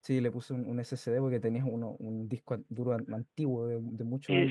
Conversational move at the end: taking over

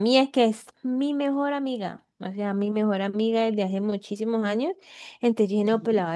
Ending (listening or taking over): listening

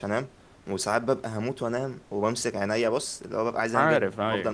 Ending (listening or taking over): listening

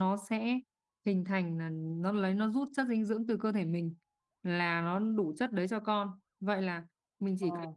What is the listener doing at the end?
listening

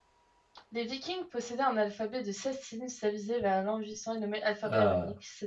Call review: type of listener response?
listening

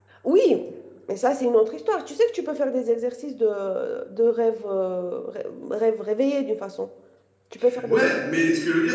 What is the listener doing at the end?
taking over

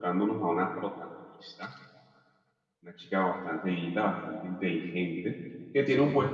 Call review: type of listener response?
listening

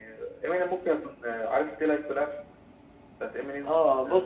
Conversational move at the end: taking over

